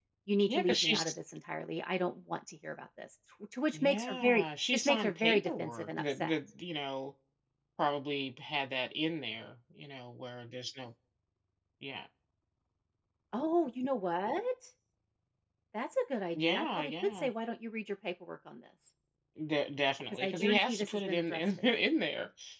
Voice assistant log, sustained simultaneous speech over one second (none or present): present